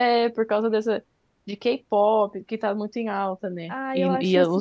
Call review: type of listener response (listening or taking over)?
taking over